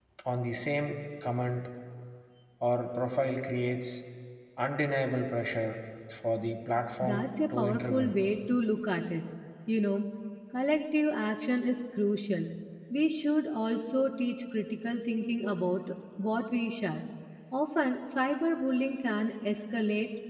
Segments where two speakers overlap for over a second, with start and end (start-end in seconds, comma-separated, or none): 7.0-8.2